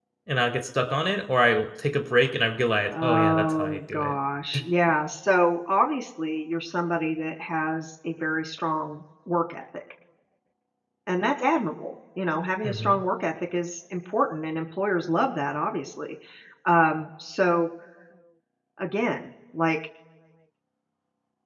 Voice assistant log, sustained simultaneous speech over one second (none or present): present